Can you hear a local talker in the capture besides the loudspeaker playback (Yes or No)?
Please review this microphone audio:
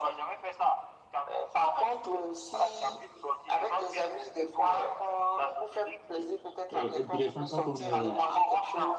Yes